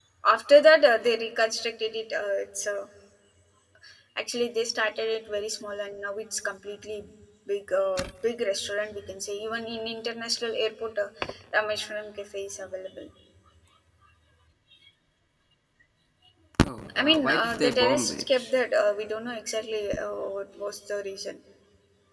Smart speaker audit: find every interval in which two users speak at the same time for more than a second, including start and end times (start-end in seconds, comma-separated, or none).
17.0-18.5